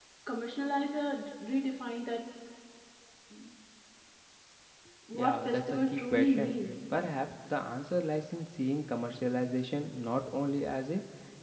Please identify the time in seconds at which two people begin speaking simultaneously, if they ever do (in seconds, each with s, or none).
5.1 s